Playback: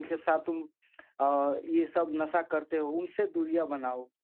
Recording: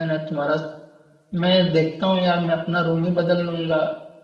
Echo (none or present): none